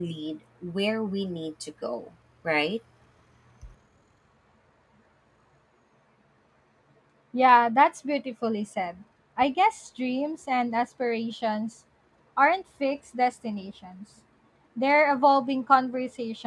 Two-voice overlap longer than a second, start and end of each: none

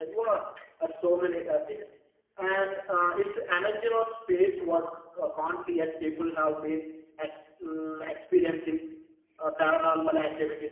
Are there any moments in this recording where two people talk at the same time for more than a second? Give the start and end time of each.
none

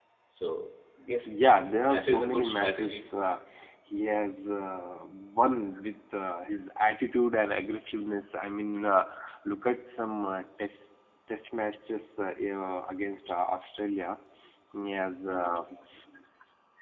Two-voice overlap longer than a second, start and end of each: 1.8-3.1

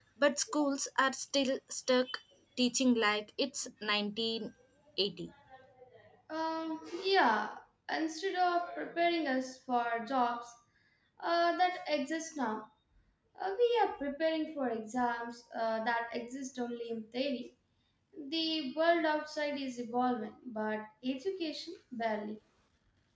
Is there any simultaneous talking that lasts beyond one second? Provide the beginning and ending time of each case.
none

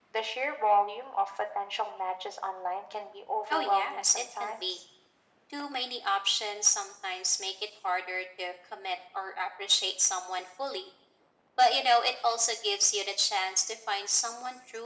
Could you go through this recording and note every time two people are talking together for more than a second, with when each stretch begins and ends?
3.5-4.8

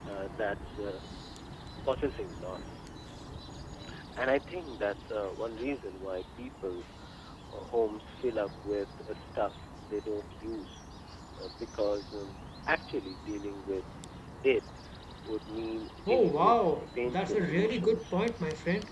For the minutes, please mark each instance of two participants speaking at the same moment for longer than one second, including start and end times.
16.1-18.0

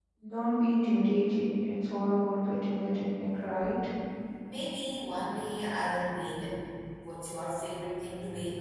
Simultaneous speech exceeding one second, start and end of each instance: none

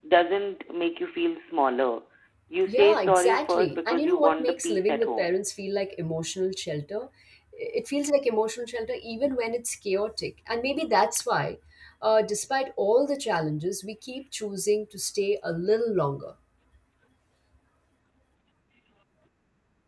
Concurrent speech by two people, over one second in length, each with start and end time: 2.7-5.3

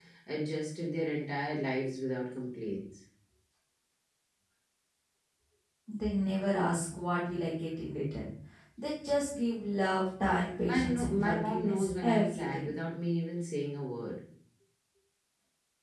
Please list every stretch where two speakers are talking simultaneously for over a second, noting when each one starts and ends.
10.7-12.8

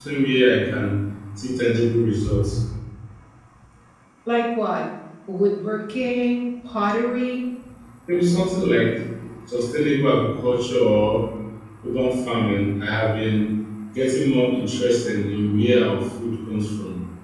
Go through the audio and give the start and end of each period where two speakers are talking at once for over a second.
none

